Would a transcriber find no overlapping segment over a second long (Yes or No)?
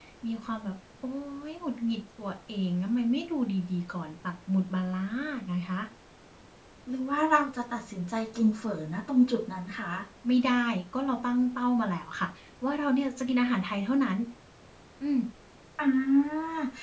Yes